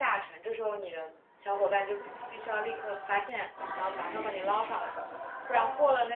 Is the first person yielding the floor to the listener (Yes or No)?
No